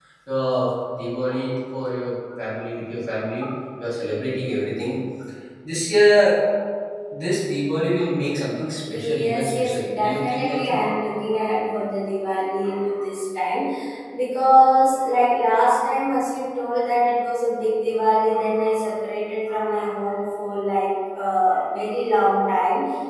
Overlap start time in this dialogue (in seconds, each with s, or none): 8.8 s